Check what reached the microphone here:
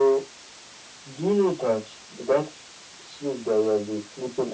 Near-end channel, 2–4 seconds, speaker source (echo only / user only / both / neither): echo only